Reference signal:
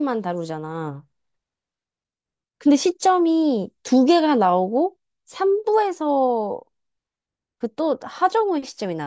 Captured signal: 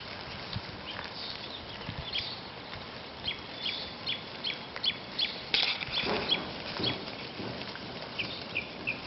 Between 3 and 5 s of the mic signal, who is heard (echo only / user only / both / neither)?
neither